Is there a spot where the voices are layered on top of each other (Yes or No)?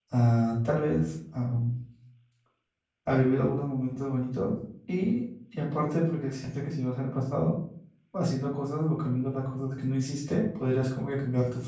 No